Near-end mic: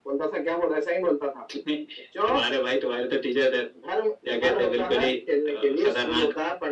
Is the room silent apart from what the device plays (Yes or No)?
Yes